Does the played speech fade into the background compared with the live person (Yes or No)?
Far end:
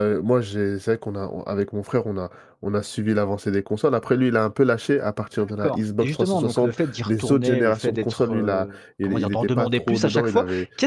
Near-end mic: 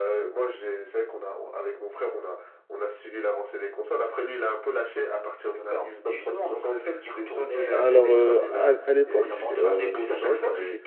Yes